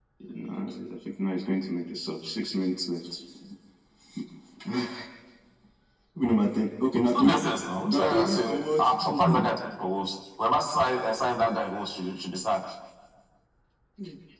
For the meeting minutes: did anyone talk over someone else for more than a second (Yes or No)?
Yes